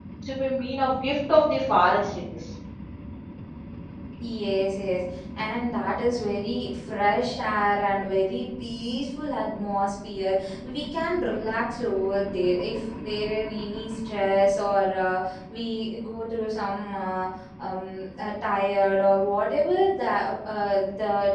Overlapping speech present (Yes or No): No